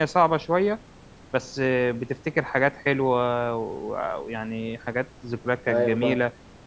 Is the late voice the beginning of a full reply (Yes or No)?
No